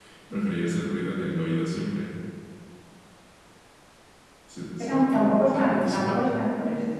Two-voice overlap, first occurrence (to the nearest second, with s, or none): 5 s